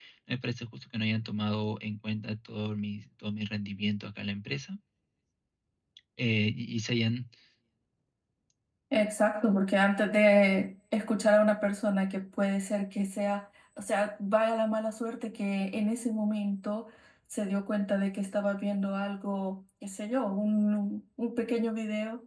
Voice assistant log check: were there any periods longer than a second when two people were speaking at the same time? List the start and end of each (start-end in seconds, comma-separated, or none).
none